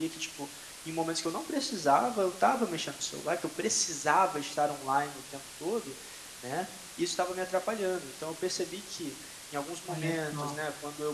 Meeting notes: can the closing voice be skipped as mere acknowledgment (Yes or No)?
Yes